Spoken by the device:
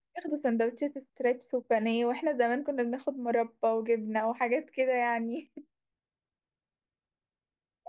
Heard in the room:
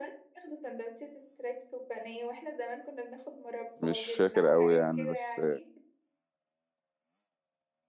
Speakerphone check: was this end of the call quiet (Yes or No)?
No